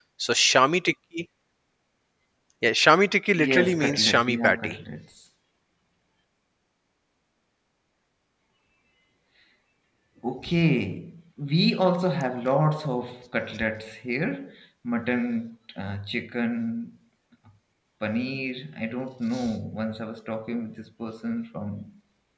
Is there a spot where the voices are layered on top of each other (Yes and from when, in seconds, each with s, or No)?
Yes, from 3.4 s